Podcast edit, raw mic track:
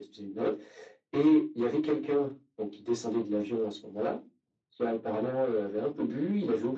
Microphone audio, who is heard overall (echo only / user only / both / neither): echo only